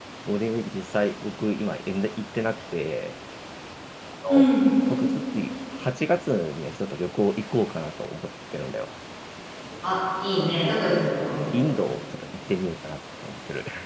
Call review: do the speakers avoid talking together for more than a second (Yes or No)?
Yes